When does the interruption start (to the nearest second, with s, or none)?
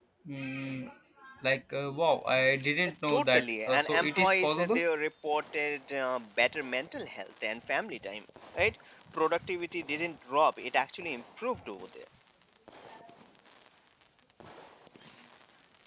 3 s